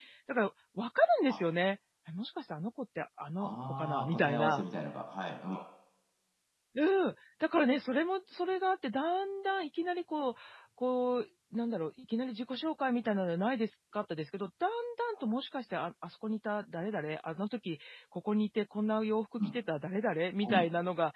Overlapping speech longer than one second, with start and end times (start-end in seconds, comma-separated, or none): 3.4-4.6